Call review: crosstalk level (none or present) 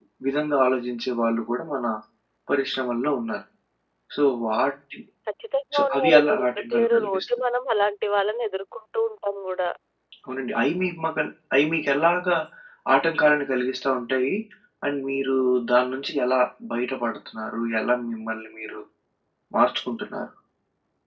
present